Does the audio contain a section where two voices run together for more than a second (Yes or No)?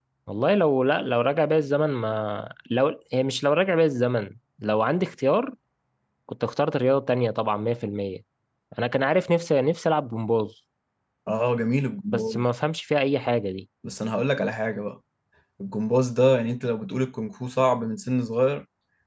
No